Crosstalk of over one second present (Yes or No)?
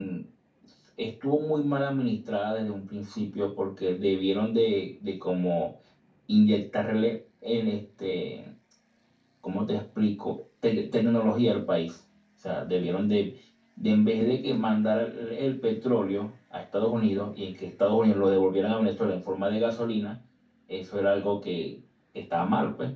No